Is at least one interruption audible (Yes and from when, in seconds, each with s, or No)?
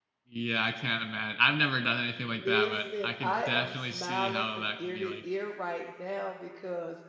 Yes, from 2.2 s